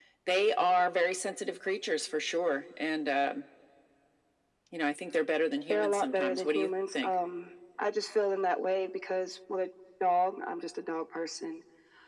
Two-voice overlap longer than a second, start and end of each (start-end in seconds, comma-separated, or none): 5.7-7.1